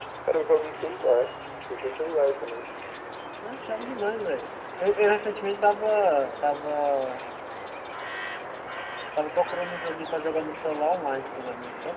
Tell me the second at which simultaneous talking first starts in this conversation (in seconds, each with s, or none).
none